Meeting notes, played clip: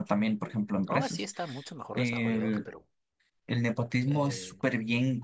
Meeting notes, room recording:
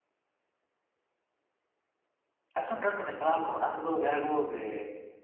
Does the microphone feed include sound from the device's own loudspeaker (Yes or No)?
No